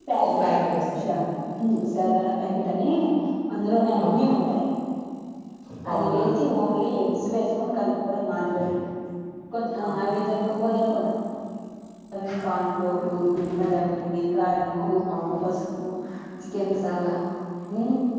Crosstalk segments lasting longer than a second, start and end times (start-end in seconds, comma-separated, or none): none